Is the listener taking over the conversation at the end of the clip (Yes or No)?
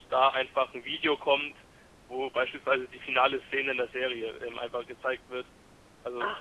Yes